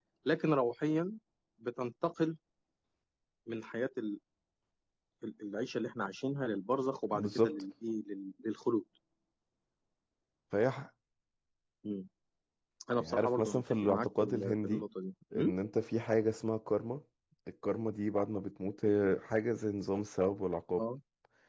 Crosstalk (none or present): present